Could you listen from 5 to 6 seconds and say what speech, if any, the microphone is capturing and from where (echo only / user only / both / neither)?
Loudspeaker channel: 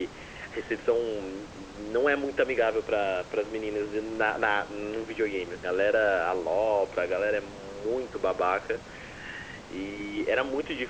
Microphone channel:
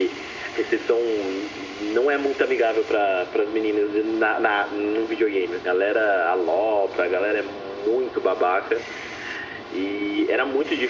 echo only